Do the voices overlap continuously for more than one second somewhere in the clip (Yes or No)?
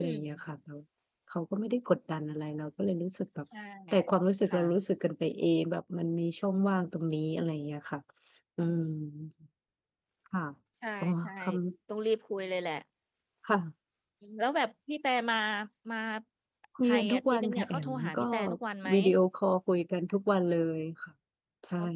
Yes